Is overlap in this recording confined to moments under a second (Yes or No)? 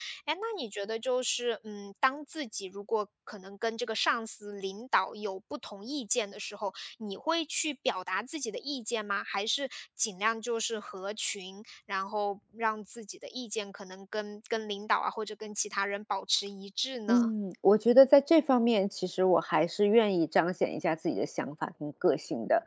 Yes